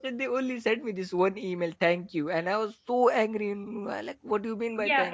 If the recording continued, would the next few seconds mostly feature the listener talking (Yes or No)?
Yes